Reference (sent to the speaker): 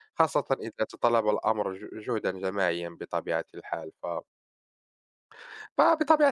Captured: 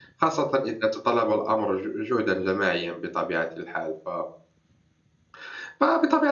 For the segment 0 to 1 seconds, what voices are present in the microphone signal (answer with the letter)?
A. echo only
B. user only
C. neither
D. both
A